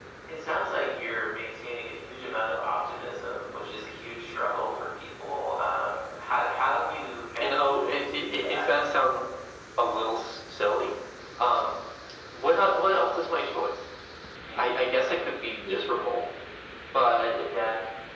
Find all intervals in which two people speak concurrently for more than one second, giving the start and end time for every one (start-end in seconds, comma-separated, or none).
7.4-8.7